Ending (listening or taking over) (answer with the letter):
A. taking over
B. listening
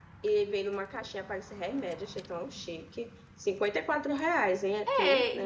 A